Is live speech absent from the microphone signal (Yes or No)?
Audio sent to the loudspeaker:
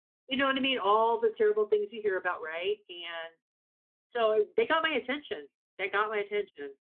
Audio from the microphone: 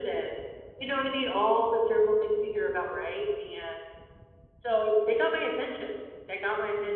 Yes